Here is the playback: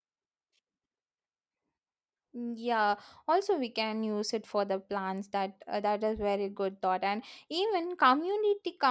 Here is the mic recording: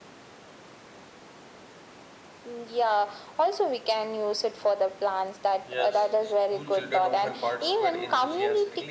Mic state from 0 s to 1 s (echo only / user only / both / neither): neither